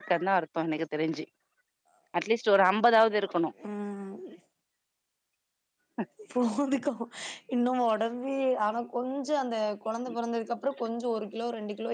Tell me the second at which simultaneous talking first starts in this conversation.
none

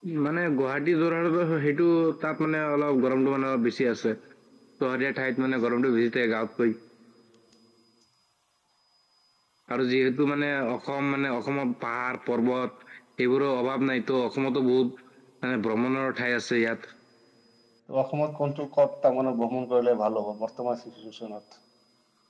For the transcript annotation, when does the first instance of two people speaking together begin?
none

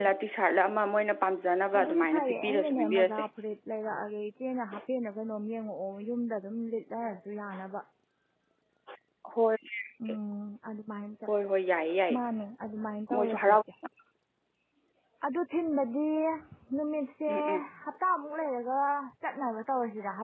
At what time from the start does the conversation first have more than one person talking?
1.8 s

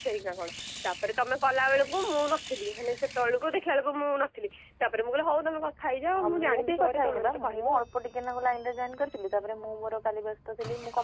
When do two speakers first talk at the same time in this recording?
6.1 s

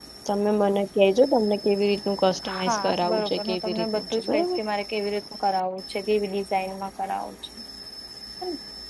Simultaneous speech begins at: 2.4 s

